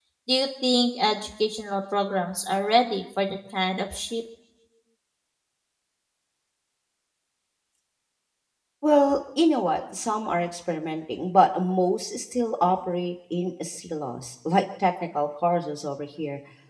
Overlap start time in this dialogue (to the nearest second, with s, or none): none